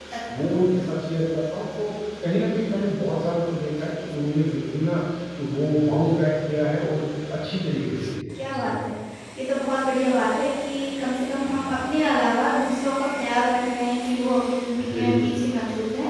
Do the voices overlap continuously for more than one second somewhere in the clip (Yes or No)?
No